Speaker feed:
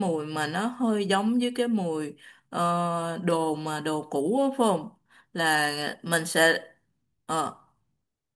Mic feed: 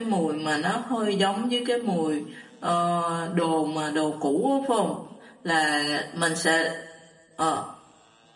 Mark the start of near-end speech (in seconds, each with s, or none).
none